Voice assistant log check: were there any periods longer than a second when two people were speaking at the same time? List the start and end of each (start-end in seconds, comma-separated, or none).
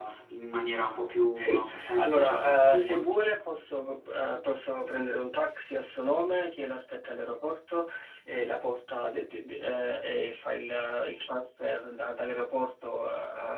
1.4-3.0